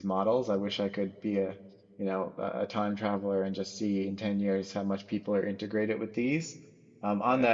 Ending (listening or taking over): listening